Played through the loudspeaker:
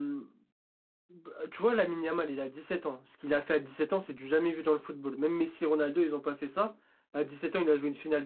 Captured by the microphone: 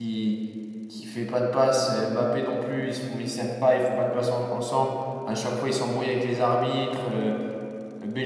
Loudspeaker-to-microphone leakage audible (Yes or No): No